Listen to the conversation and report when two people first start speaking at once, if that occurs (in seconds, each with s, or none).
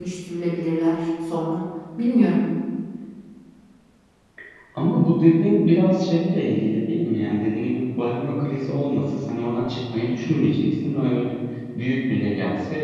none